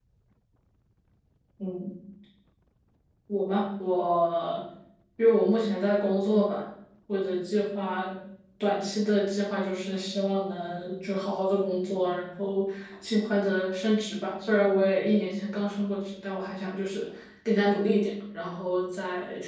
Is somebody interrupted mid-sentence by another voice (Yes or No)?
No